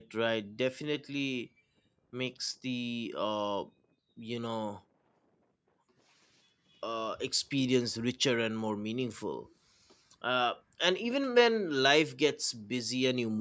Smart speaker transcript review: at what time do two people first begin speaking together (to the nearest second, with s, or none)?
none